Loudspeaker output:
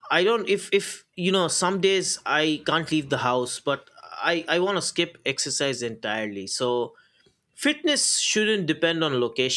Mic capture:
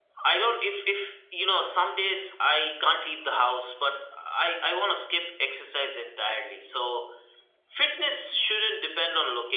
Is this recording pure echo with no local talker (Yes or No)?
Yes